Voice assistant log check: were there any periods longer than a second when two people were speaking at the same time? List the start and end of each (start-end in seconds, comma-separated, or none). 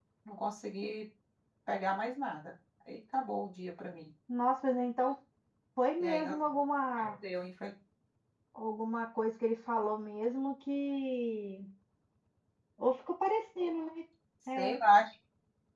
none